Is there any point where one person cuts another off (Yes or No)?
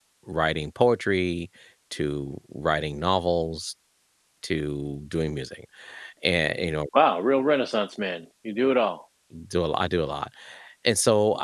No